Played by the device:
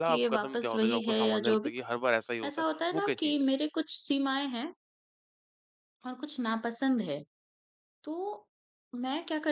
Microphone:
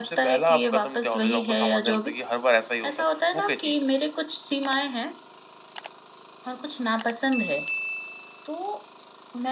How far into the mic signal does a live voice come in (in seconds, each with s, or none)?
none